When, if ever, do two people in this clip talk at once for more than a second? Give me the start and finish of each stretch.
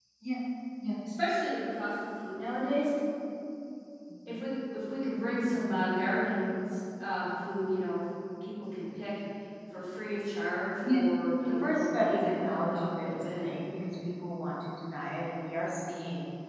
11.6-13.4

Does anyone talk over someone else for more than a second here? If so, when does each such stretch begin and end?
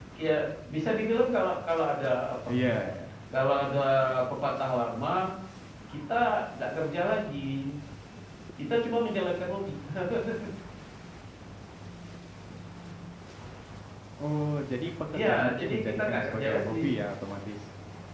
15.2-16.9

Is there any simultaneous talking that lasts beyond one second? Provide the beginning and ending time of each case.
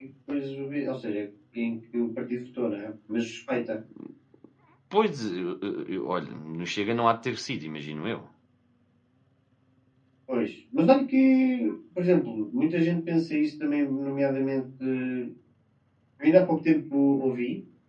none

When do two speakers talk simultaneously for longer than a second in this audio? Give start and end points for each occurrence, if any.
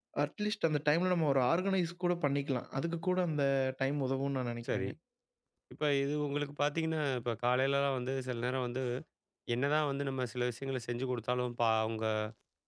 none

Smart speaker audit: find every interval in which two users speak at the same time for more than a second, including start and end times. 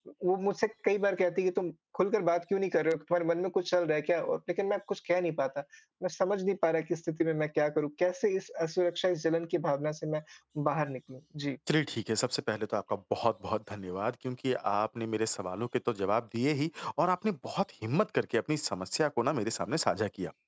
none

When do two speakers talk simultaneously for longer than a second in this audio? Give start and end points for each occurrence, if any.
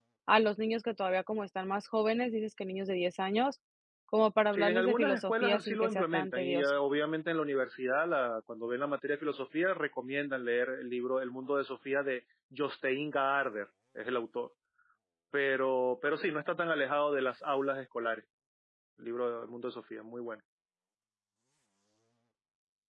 4.5-6.7

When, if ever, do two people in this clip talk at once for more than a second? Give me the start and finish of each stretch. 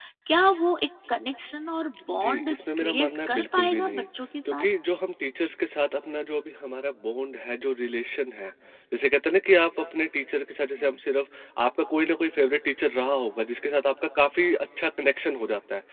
2.1-4.0

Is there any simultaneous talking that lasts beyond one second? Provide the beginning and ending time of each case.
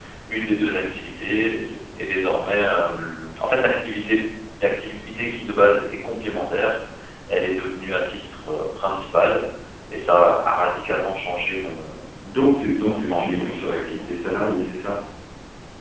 12.8-14.1

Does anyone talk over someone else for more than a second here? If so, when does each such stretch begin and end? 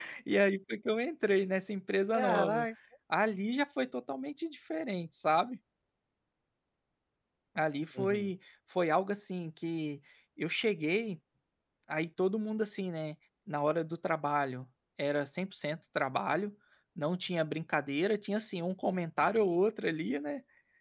none

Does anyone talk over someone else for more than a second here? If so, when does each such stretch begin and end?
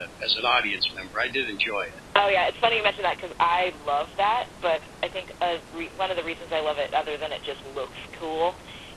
none

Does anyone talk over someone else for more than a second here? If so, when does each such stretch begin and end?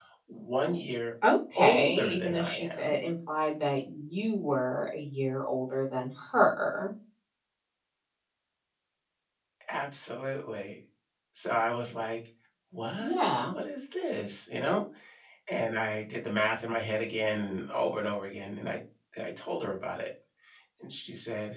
1.6-2.9

